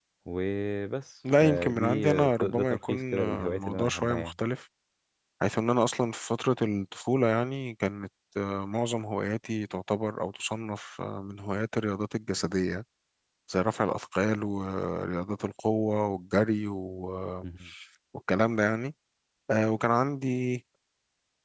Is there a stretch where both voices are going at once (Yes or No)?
Yes